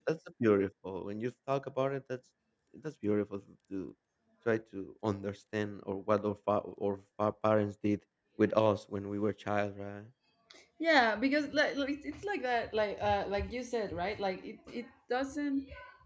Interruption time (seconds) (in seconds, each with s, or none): none